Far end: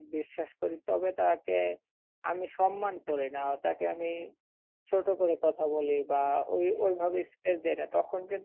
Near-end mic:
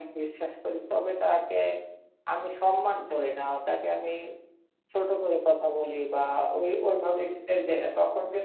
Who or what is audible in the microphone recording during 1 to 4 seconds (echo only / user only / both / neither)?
echo only